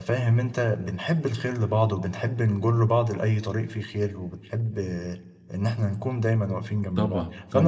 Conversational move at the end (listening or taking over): listening